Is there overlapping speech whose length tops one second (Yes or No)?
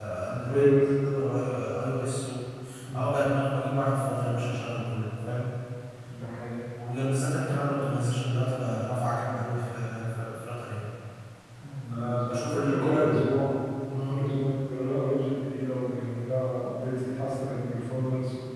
Yes